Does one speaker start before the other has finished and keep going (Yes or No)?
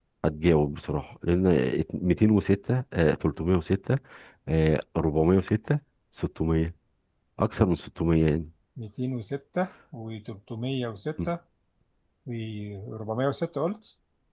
No